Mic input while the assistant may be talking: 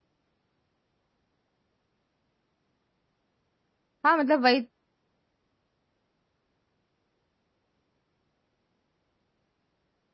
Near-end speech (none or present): present